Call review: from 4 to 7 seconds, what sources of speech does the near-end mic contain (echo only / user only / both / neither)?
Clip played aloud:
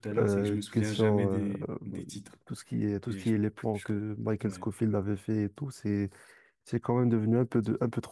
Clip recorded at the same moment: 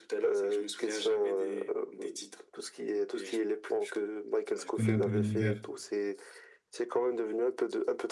both